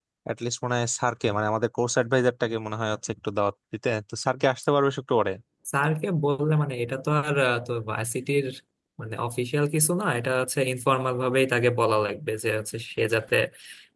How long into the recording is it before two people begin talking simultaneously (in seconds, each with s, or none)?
none